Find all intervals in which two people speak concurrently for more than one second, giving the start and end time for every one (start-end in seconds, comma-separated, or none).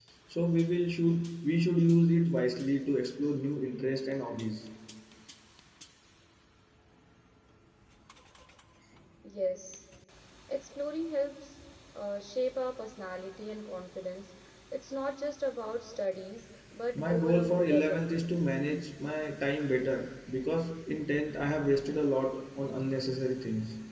16.9-18.3